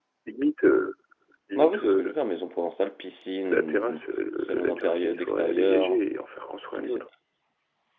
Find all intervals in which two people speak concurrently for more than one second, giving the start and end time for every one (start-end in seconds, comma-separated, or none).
4.4-6.0